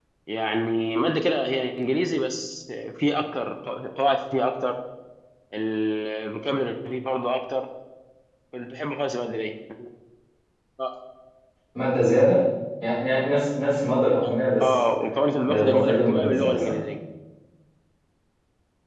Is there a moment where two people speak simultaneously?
Yes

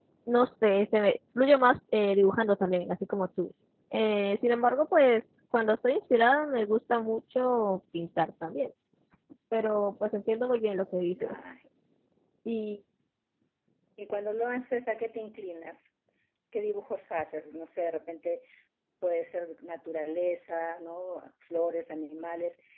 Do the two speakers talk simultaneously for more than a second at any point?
No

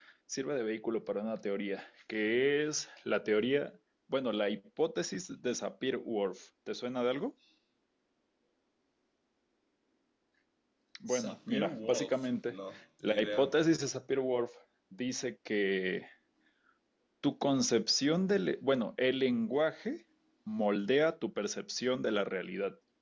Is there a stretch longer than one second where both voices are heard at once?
Yes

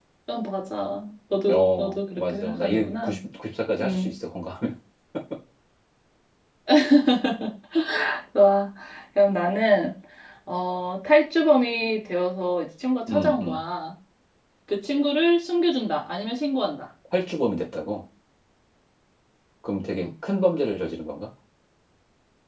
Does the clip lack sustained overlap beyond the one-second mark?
No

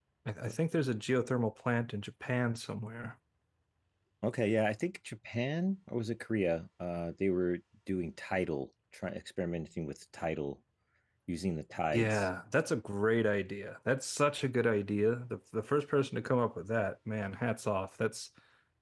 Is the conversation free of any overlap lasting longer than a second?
Yes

